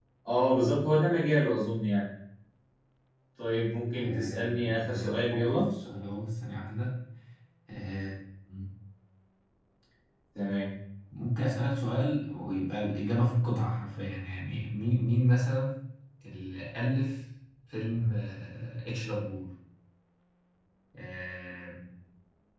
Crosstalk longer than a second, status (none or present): present